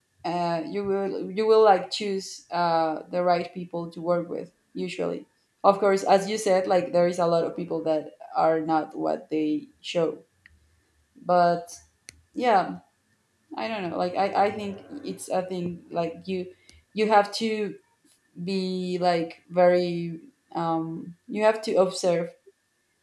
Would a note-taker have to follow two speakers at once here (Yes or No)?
No